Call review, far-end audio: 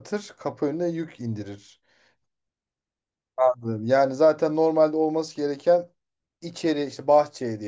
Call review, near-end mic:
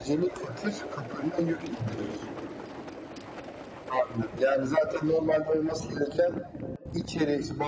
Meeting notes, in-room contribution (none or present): none